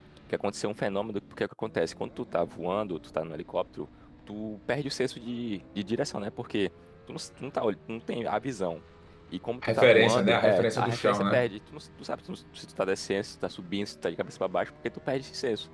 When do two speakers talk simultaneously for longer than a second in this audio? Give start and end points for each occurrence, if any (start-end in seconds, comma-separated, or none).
9.6-11.5